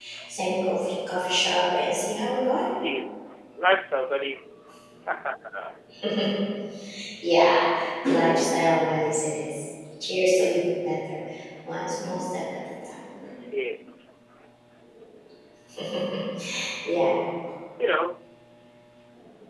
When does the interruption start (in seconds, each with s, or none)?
none